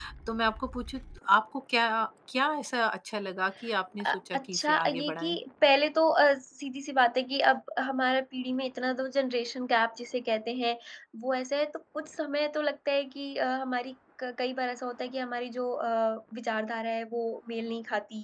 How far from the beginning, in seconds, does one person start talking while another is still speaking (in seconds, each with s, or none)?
4.0 s